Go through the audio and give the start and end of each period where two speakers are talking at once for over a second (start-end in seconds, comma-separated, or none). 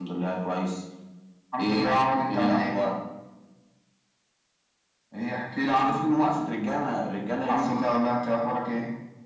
1.6-2.8